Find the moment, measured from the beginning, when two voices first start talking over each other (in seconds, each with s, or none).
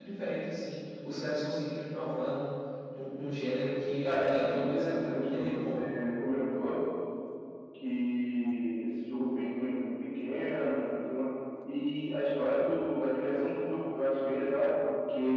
4.0 s